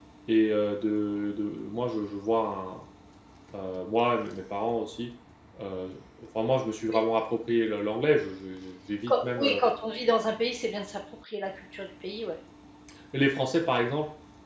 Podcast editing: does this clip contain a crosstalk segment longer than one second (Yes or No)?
No